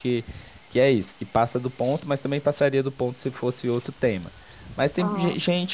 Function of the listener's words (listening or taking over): listening